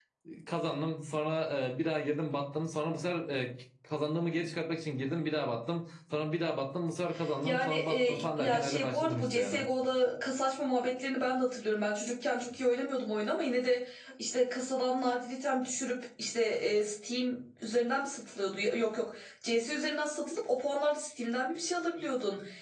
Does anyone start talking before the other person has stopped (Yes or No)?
Yes